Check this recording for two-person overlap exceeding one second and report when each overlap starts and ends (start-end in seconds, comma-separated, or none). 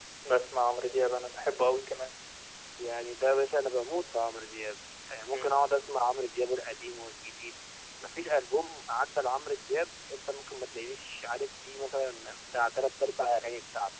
none